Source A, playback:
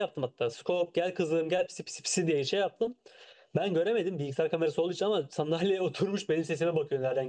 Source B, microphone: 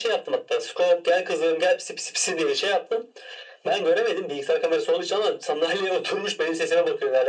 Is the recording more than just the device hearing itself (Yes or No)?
No